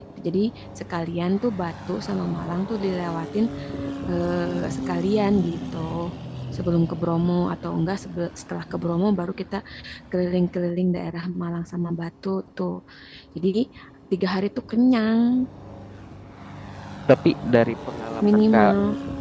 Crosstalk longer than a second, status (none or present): none